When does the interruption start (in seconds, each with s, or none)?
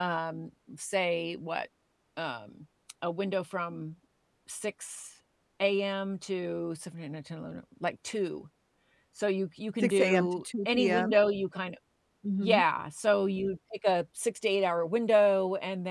9.8 s